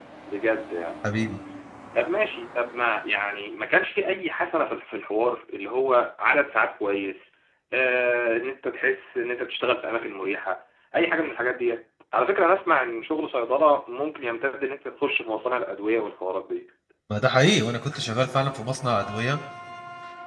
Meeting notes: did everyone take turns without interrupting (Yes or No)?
Yes